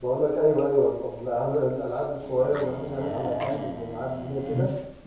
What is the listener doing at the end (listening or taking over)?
taking over